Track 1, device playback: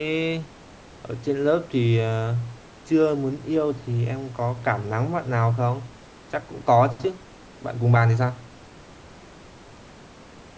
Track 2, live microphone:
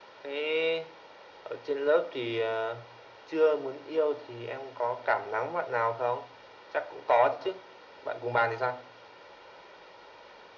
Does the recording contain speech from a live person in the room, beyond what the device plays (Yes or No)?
No